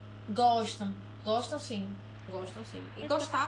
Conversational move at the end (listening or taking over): listening